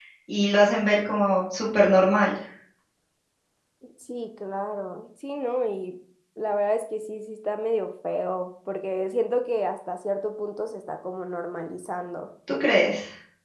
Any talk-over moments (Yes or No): No